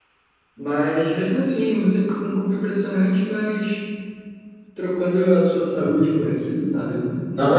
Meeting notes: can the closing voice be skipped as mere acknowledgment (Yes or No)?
No